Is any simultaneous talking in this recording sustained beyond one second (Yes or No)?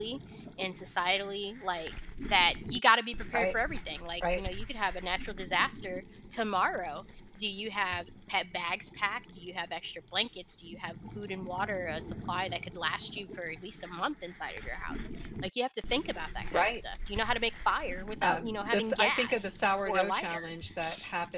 Yes